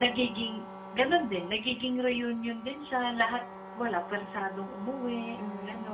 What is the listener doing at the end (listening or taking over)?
taking over